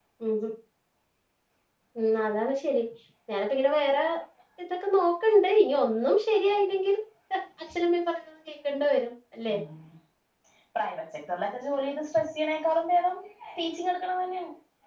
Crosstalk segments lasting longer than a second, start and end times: none

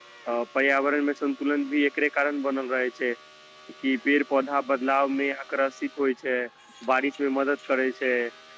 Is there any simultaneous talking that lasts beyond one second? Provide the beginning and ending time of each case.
none

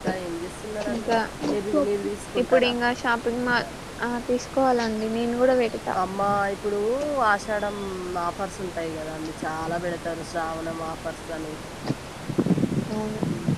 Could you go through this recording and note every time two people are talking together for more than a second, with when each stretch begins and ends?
none

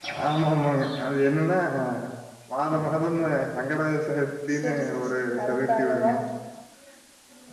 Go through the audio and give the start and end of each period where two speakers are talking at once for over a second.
4.5-6.1

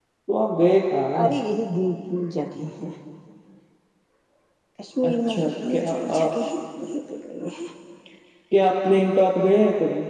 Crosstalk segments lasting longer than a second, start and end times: 5.1-6.3

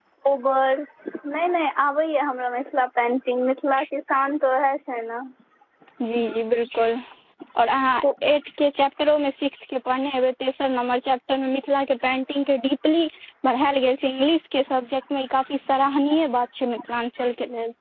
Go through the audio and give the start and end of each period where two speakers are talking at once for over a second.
none

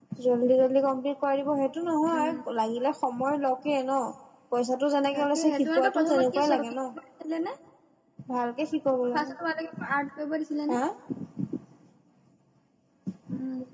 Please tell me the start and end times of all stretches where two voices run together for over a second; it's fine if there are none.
5.2-6.6

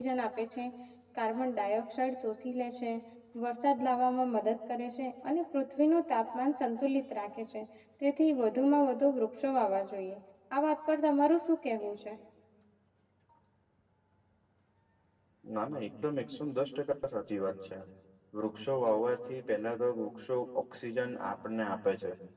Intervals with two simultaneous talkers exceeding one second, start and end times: none

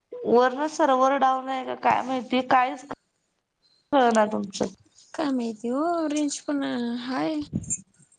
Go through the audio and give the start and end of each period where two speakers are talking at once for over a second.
none

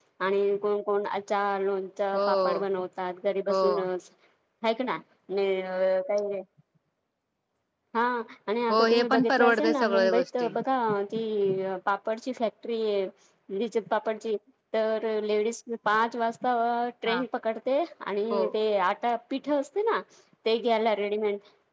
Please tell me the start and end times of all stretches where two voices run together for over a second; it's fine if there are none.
8.7-10.5

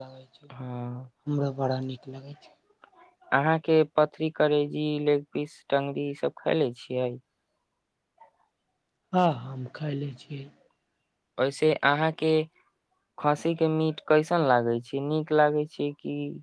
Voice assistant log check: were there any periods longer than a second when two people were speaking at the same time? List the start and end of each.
none

